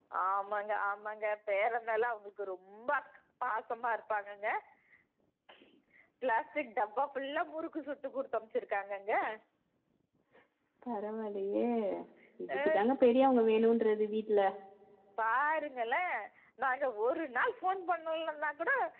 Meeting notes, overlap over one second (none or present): none